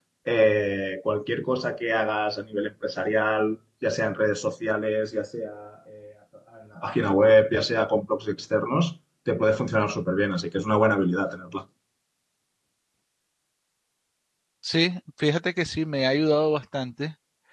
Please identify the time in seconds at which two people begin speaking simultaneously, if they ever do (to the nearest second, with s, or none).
none